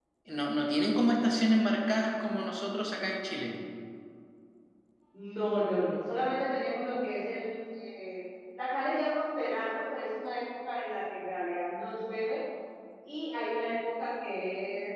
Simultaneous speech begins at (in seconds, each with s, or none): none